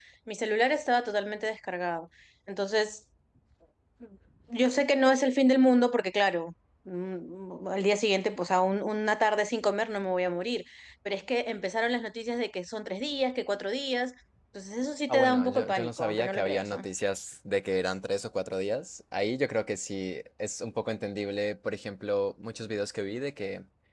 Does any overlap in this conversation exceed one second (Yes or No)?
Yes